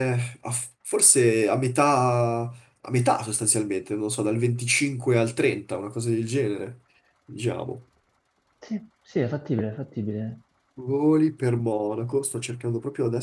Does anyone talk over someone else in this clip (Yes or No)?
No